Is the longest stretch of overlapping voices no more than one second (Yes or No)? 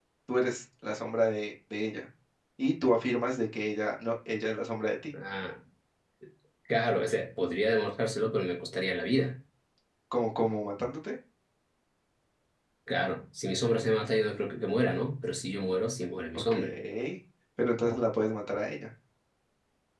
Yes